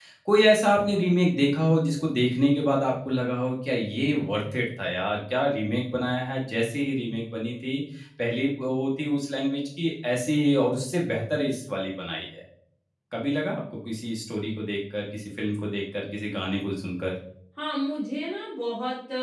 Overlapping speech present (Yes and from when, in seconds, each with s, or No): No